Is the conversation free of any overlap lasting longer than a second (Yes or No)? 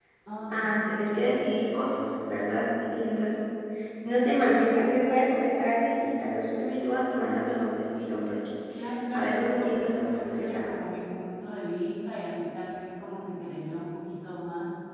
No